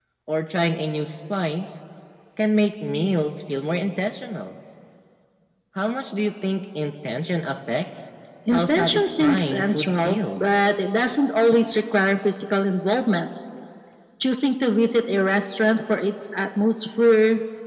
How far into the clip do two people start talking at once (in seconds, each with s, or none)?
8.5 s